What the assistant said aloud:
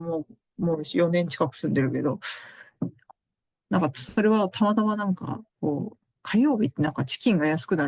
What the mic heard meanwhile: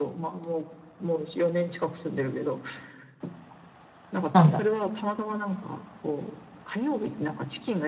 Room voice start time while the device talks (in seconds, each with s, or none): 4.3 s